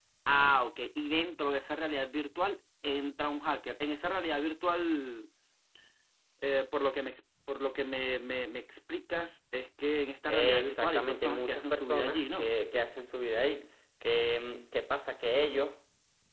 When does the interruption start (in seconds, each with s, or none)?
10.3 s